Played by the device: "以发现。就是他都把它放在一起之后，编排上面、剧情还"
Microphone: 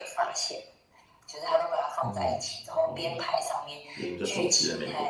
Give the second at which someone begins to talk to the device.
2.0 s

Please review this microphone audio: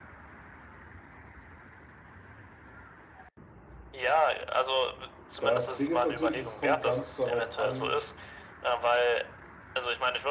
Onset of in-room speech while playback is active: 5.4 s

